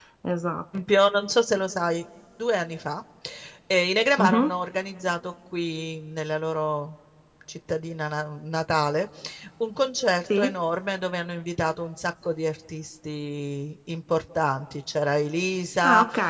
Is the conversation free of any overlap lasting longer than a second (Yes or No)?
Yes